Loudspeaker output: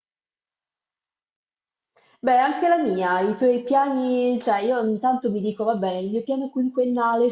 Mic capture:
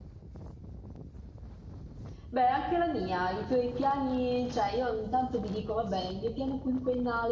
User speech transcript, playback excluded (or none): none